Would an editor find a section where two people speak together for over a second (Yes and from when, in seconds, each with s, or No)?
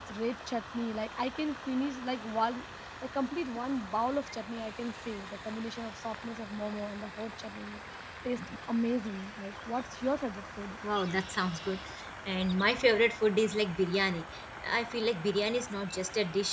No